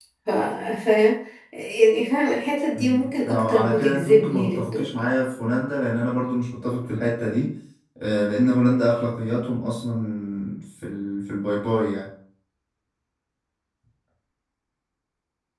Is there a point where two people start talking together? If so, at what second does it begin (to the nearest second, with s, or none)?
3 s